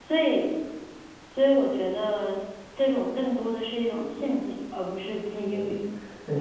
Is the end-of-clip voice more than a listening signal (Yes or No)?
Yes